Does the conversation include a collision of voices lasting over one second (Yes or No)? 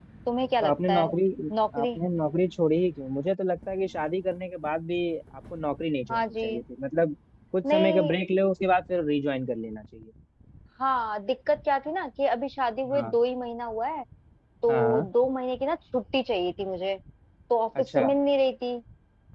No